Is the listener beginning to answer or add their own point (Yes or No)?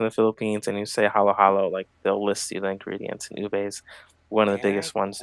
Yes